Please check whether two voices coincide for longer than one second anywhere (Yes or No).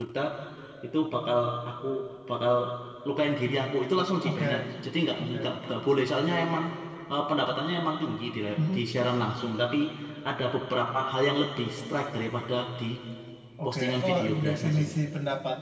Yes